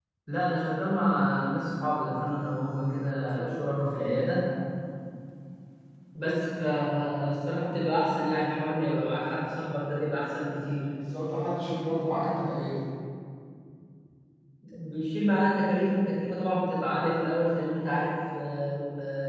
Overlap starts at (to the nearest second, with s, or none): none